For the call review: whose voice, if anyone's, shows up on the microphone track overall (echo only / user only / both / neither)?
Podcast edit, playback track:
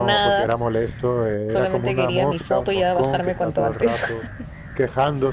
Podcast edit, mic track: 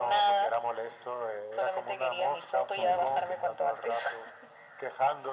both